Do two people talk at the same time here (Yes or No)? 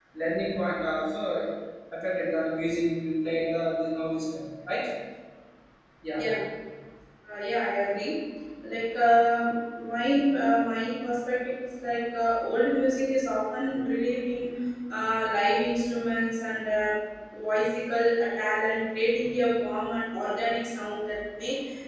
No